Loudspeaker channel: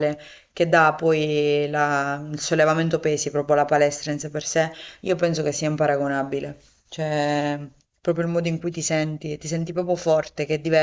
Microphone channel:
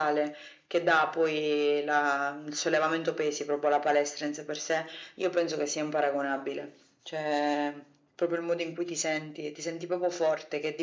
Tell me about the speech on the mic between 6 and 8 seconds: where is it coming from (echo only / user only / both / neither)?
echo only